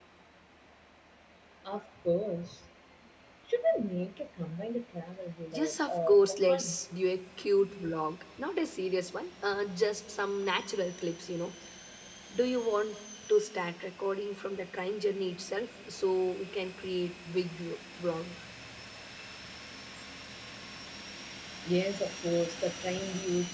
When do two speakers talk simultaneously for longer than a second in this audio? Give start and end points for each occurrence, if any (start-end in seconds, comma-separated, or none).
5.5-6.8